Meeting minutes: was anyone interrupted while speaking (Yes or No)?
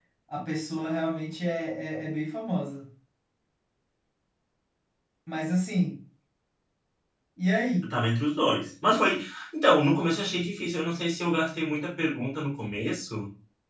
No